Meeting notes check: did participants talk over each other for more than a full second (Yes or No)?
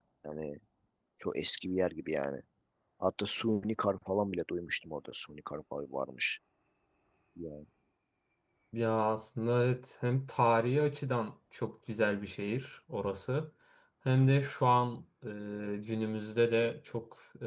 No